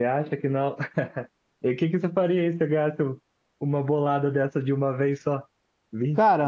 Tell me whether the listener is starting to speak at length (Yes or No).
No